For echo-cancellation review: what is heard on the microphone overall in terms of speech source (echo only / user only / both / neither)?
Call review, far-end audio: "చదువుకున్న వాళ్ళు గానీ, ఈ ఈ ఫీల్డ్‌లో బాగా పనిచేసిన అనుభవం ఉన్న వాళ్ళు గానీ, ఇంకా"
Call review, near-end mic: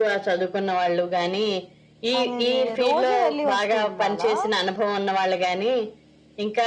both